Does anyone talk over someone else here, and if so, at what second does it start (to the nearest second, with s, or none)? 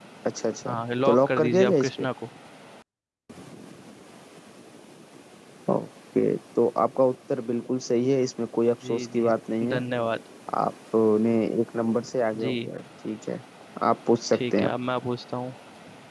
1 s